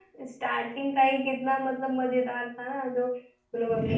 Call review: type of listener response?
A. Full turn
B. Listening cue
B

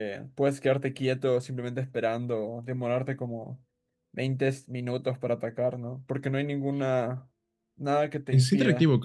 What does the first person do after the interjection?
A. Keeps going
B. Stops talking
B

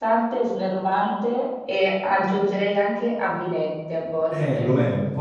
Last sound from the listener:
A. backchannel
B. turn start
B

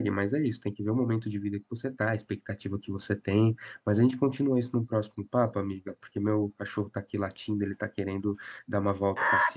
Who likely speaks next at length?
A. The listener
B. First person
A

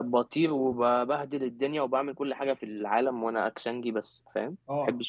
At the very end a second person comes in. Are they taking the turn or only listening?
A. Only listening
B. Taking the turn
B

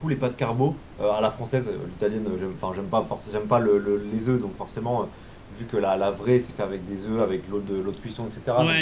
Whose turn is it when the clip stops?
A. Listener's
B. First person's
A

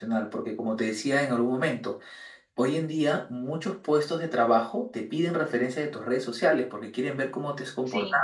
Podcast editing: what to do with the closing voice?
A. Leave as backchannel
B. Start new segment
A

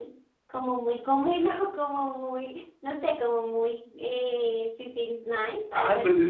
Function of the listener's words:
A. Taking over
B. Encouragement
A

